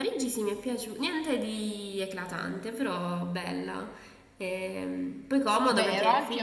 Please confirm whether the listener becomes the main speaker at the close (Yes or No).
Yes